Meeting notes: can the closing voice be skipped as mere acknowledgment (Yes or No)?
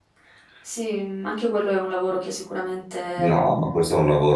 No